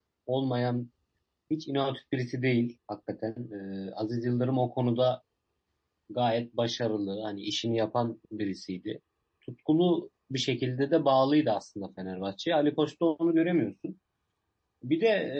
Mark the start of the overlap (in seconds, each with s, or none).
none